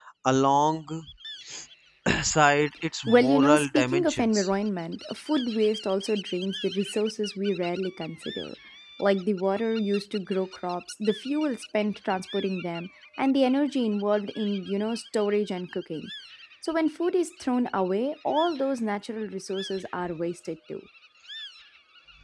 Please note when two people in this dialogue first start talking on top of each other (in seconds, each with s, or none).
3.1 s